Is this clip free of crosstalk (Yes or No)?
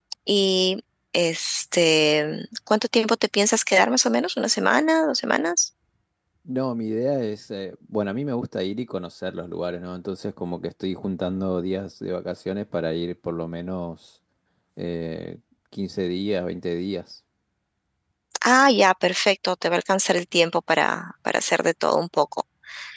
Yes